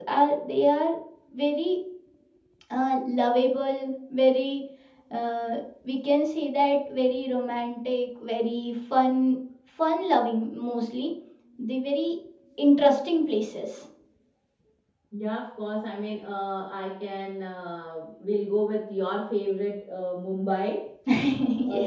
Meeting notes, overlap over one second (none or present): none